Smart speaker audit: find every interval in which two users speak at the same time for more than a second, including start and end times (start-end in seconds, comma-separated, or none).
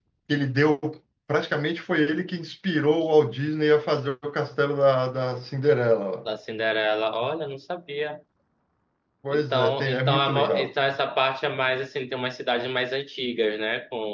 9.3-10.7